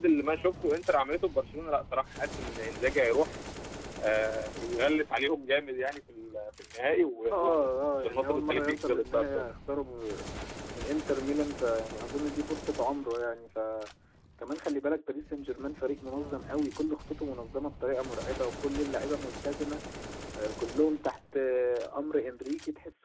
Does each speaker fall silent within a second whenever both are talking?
No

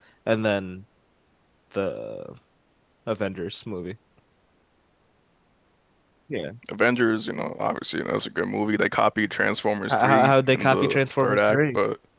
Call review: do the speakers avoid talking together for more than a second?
No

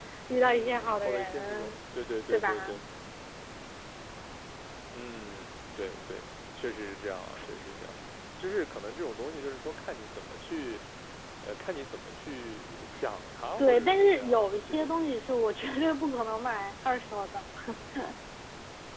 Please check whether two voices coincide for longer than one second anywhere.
Yes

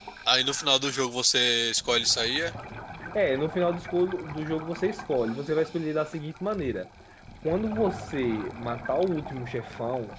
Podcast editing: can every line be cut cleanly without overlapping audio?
Yes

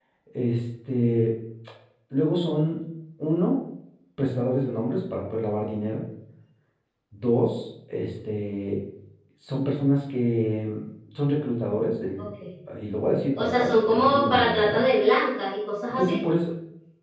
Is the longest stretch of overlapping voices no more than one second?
No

